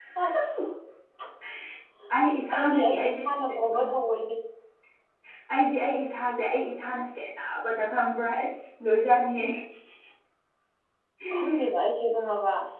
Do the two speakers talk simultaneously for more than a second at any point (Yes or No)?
Yes